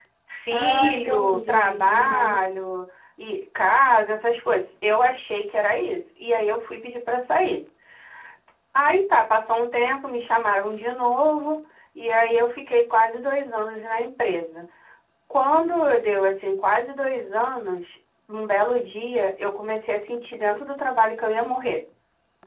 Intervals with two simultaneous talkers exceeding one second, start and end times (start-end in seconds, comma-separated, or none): 0.5-2.4